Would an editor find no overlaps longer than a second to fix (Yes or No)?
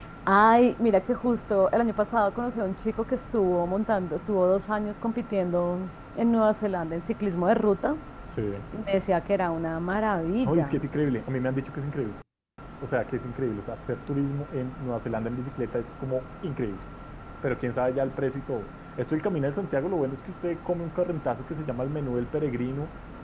Yes